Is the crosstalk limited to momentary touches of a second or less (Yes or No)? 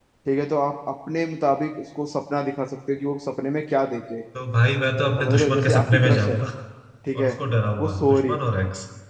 No